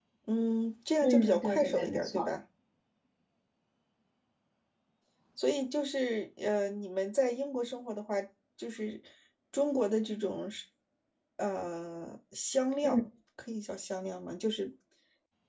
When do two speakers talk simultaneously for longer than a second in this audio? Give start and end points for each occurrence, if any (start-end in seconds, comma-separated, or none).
1.0-2.3